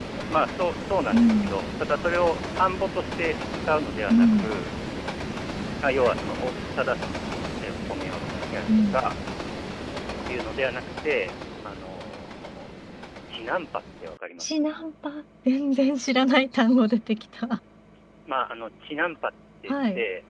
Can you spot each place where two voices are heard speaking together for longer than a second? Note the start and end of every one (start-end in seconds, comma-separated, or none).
none